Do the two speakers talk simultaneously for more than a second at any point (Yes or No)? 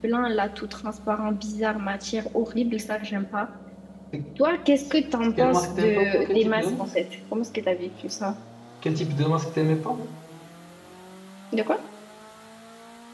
Yes